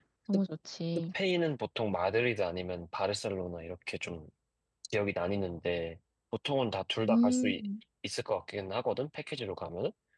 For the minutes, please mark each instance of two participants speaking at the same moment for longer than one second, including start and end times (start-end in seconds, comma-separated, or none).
none